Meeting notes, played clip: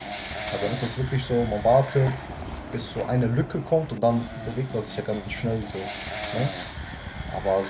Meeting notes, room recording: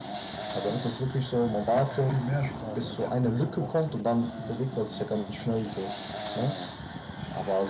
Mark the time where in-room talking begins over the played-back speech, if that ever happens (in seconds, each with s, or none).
1.6 s